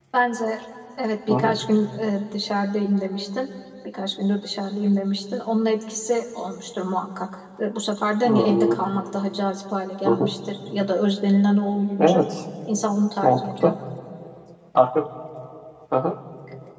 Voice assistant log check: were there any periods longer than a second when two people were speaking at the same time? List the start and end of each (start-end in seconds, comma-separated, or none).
none